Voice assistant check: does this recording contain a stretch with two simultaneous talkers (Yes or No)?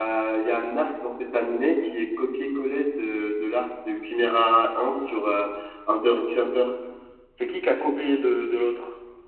No